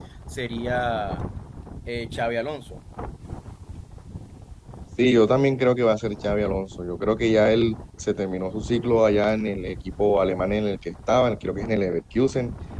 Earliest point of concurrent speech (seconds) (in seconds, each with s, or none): none